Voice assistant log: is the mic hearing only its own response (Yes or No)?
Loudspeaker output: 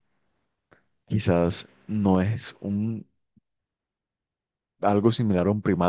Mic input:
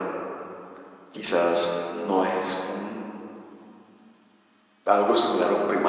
Yes